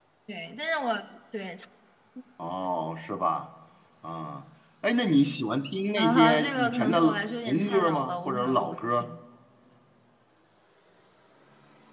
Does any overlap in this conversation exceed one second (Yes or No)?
Yes